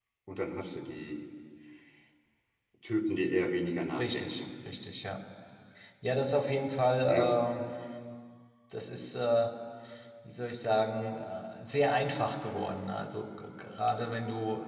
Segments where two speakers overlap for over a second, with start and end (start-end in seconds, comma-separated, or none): none